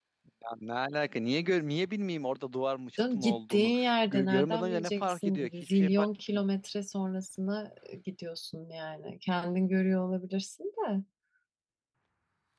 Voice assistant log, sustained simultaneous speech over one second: present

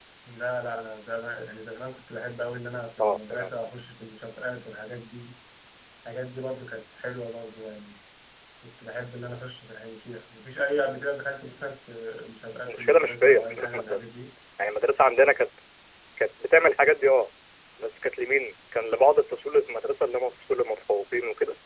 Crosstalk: present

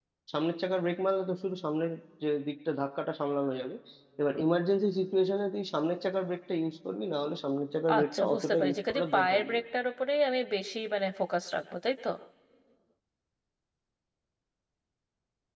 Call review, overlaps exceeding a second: present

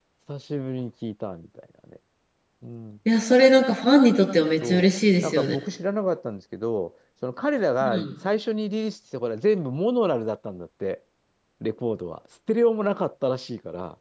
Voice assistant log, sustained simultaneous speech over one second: none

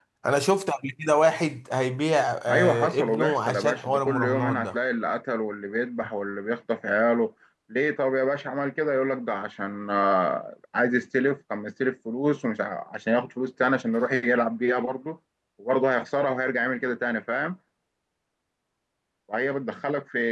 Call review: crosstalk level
present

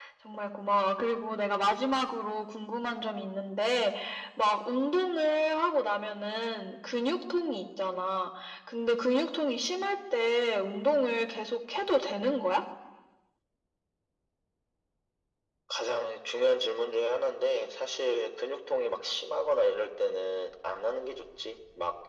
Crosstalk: none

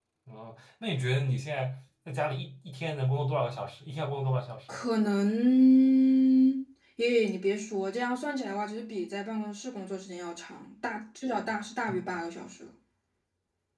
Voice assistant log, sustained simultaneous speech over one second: none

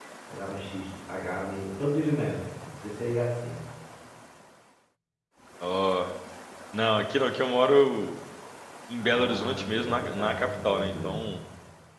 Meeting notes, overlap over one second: present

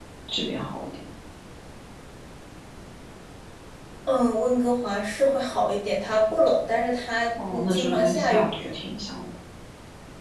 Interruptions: present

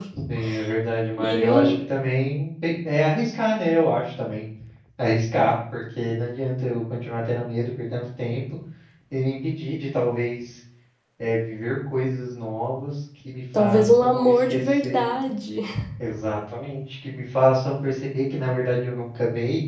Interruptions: present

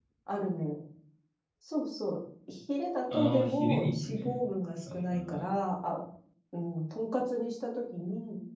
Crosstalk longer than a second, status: present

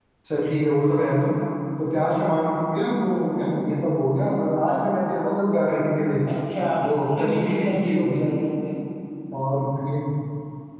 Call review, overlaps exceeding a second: present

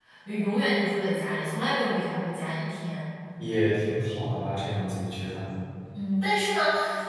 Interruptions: none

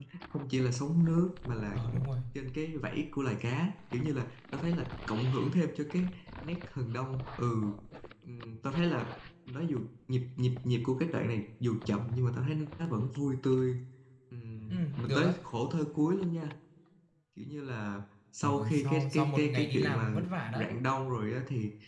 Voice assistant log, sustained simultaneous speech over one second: present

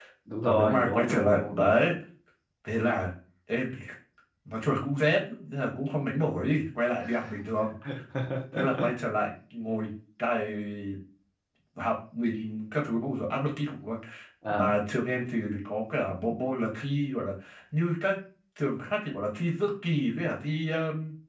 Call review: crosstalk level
present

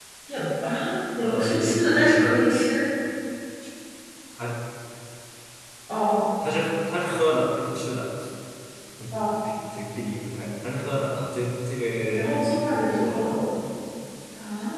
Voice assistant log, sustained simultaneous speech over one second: present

